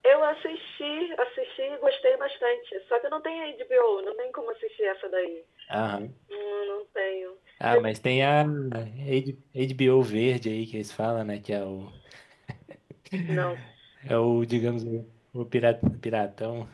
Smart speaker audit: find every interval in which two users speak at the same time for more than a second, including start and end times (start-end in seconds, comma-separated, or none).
none